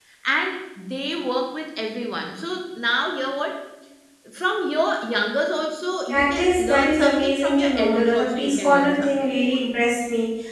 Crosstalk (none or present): present